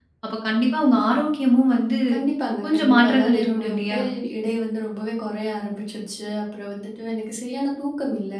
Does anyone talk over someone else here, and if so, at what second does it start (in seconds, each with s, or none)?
2.6 s